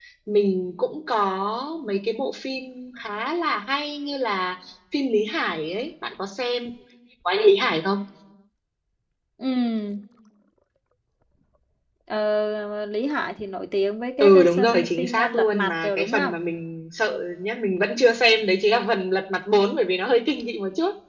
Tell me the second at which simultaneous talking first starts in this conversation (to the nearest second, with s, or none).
14 s